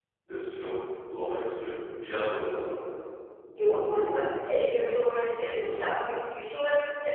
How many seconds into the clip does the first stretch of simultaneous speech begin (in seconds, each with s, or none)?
none